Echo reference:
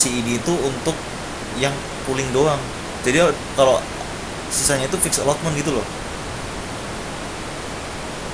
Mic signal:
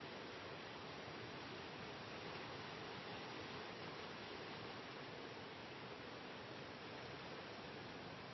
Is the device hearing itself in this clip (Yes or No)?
No